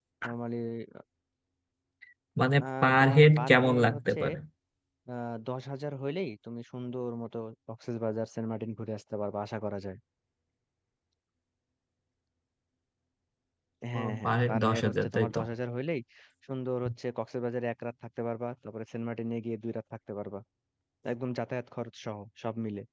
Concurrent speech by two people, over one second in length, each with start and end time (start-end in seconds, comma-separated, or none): 2.8-4.2, 14.0-15.4